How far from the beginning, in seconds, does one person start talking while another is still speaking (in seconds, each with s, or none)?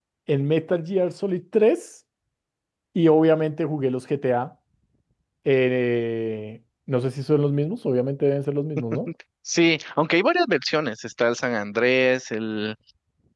none